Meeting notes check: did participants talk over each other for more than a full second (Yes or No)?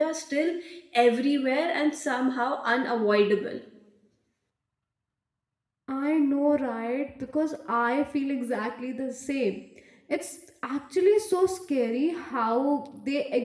No